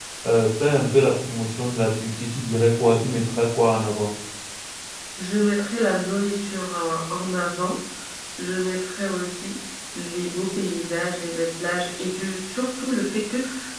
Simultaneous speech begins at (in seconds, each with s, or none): none